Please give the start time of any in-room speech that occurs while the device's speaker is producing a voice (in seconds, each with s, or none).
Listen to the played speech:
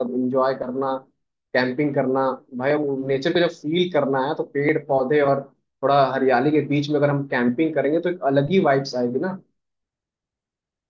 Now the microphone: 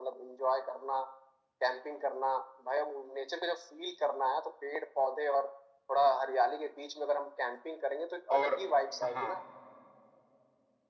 8.4 s